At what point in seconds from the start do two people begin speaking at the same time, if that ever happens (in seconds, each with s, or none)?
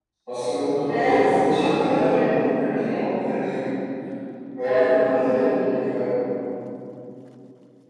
0.8 s